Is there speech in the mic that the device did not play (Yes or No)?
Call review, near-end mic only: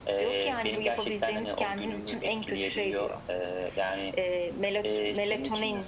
No